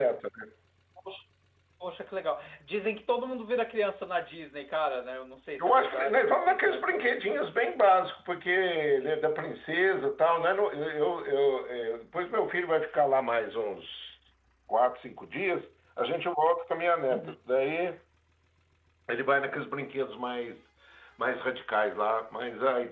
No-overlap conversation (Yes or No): No